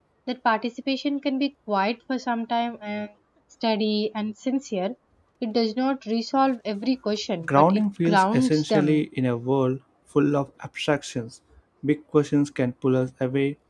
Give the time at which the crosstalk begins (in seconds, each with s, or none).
7.4 s